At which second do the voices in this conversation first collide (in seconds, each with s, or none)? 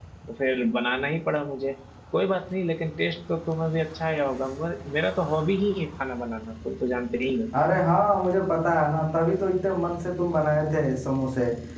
none